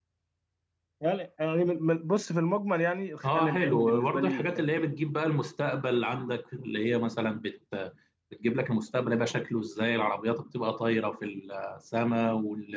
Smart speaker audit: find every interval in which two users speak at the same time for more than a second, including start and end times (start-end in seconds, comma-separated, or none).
3.2-4.7